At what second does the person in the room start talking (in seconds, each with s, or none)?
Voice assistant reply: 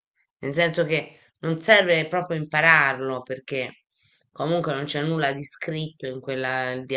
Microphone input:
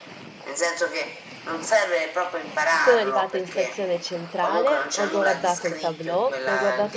2.7 s